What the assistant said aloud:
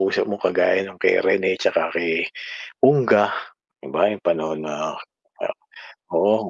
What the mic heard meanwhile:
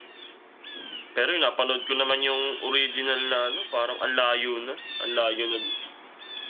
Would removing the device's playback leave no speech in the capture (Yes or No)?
No